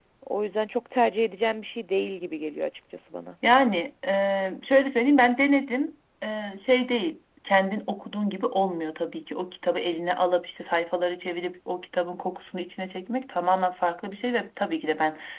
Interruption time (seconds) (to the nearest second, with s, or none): none